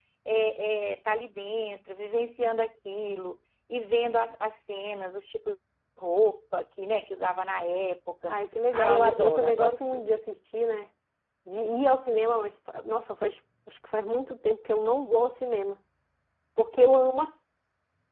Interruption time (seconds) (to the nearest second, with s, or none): 9 s